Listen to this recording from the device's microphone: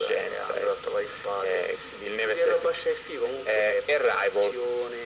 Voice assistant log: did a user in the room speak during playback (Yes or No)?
No